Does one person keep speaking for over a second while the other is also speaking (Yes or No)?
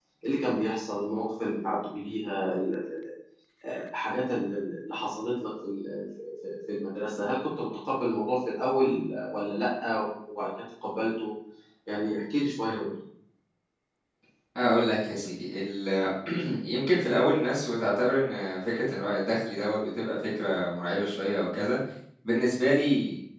No